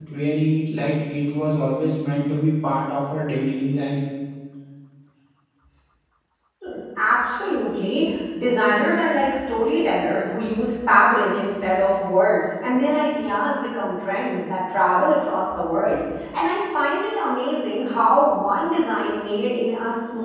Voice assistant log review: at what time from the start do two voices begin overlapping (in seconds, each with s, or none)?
none